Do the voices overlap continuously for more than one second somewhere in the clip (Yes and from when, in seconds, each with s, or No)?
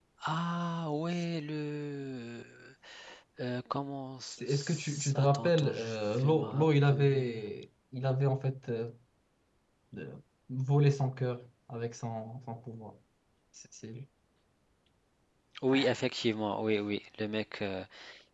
Yes, from 4.4 s